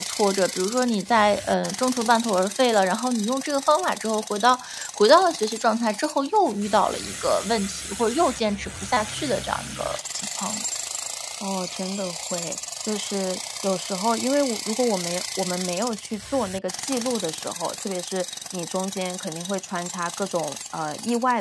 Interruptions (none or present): none